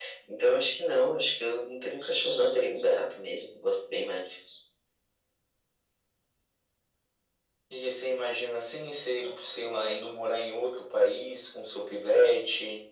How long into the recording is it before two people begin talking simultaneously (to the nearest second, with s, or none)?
none